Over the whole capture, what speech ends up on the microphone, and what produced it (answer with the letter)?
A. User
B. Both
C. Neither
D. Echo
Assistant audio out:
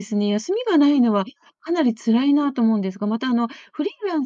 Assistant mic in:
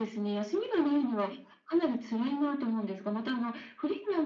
D